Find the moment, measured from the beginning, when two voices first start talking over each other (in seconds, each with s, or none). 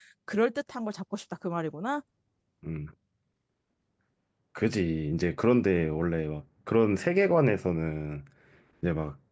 none